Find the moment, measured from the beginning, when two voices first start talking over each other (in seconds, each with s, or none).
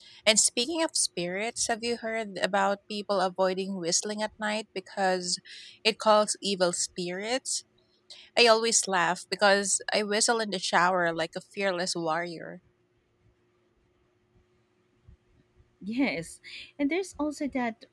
none